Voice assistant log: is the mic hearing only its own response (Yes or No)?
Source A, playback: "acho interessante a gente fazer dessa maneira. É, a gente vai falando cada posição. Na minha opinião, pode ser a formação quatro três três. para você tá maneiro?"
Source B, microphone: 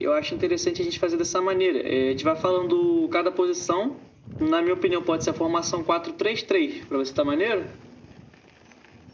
Yes